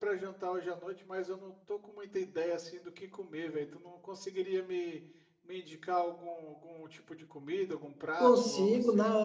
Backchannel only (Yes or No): No